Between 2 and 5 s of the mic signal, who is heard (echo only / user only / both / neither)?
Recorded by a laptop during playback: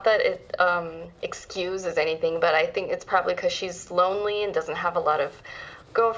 echo only